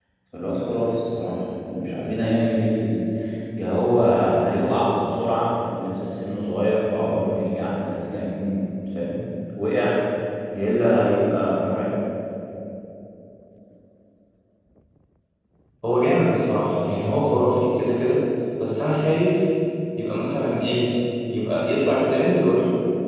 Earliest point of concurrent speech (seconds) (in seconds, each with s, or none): none